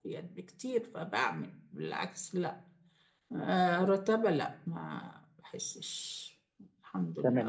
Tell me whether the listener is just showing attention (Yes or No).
No